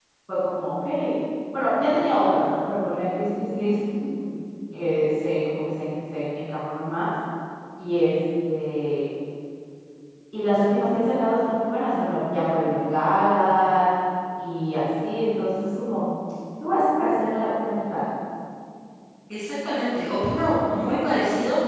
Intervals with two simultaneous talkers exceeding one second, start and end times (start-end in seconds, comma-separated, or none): none